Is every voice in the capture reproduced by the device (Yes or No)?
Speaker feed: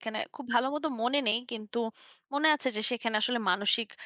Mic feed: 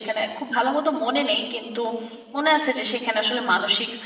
Yes